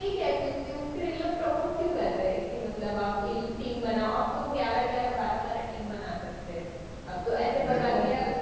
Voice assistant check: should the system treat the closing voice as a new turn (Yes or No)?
No